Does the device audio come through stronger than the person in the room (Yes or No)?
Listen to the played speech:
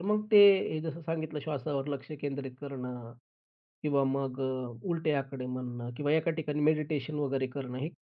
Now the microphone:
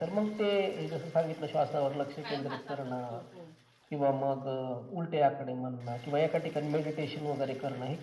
Yes